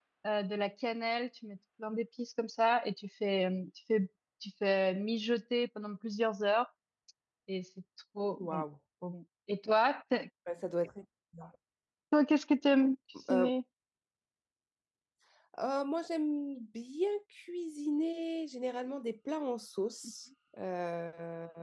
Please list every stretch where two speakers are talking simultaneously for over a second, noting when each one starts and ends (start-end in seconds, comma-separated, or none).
none